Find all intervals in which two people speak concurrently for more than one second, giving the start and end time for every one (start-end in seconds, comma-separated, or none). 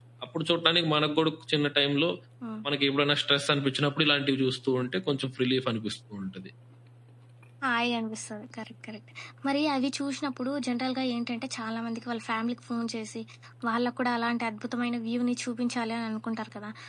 none